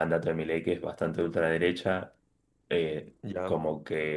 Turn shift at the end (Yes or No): No